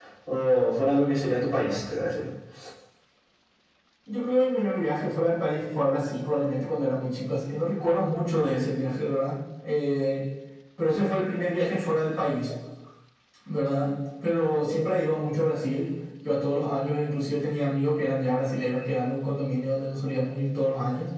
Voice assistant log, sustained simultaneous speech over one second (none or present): none